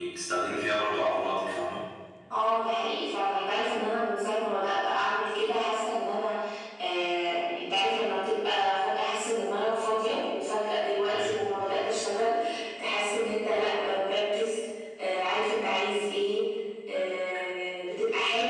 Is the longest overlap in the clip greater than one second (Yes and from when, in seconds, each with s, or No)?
No